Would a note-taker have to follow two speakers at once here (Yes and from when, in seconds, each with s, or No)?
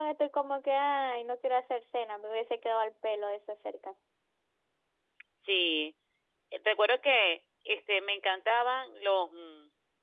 No